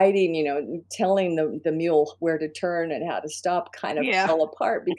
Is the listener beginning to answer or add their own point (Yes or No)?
No